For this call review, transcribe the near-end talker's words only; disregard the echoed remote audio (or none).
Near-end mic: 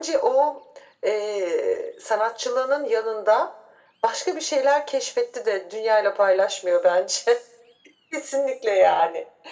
none